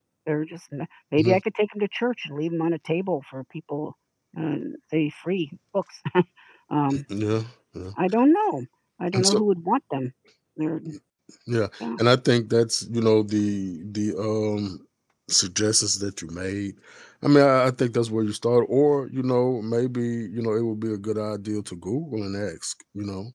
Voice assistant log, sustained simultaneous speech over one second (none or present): none